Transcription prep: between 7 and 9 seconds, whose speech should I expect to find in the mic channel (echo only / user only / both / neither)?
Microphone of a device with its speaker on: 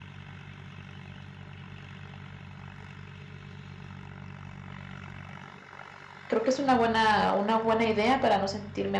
user only